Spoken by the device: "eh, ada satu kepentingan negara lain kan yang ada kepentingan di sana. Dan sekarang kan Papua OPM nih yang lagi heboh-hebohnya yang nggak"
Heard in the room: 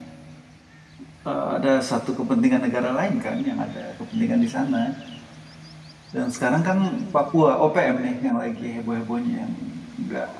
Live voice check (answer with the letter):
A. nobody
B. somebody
A